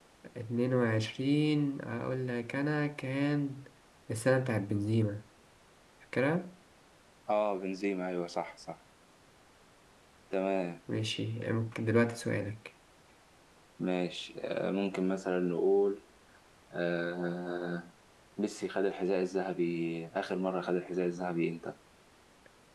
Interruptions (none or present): none